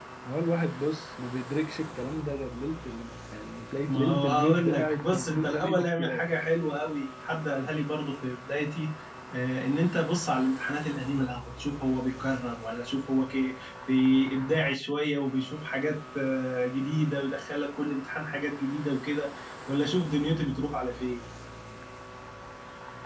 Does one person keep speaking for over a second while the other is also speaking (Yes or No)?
Yes